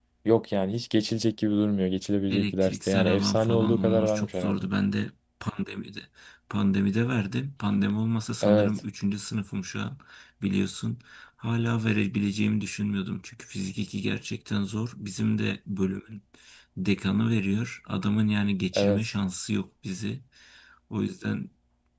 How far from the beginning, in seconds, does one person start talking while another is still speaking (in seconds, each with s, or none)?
2.3 s